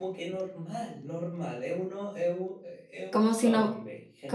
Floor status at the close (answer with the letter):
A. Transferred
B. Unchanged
A